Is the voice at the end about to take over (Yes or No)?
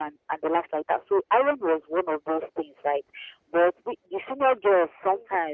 No